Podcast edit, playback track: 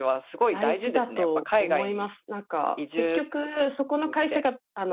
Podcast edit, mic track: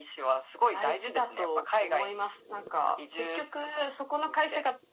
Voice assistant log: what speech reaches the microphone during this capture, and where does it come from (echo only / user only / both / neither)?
echo only